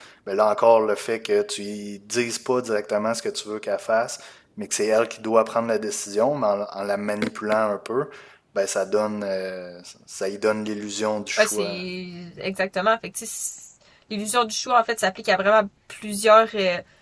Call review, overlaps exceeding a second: none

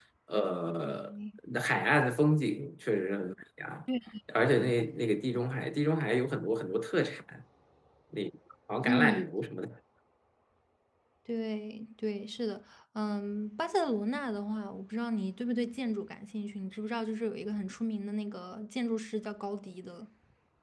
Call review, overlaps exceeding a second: none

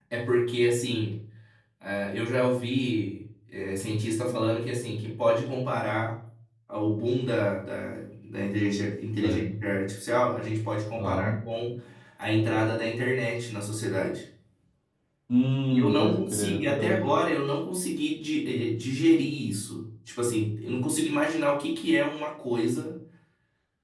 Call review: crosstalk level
present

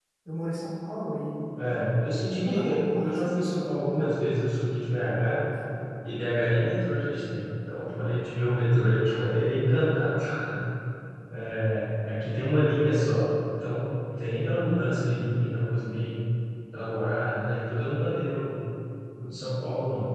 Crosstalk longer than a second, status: present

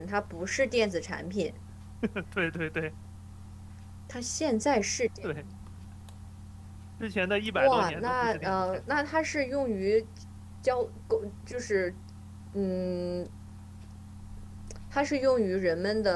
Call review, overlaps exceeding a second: present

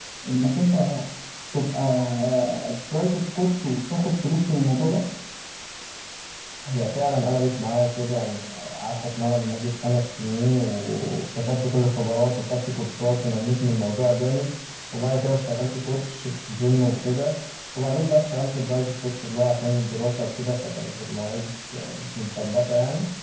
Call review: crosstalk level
none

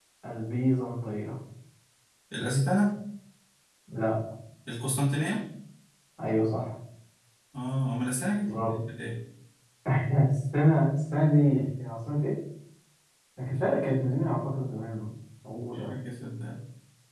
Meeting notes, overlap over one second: none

